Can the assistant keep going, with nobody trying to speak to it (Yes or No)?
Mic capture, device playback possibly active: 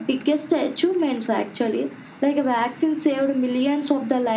Yes